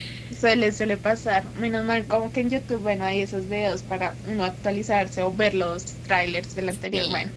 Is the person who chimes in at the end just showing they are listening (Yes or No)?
No